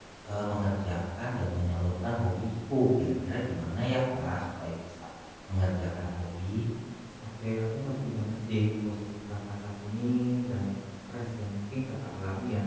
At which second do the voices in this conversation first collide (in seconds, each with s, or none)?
none